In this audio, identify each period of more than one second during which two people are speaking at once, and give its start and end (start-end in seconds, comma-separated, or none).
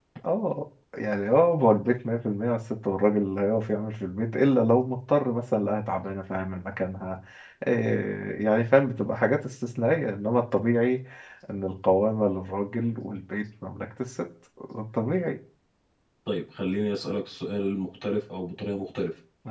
none